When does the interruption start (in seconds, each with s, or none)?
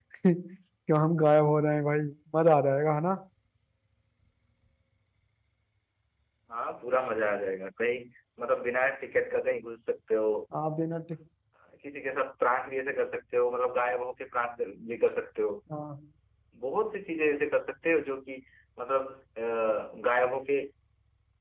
none